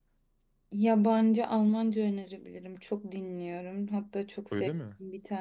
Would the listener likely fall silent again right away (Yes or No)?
Yes